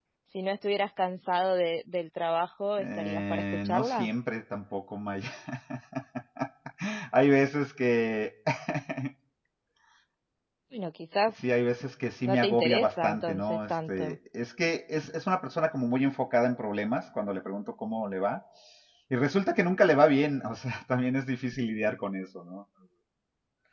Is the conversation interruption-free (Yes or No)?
No